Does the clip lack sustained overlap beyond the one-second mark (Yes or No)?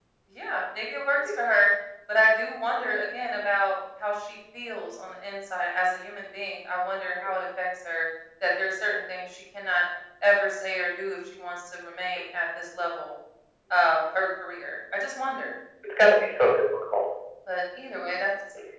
Yes